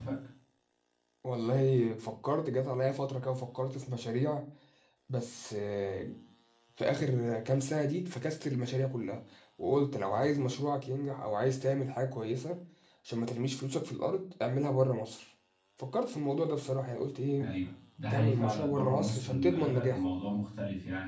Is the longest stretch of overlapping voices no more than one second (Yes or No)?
No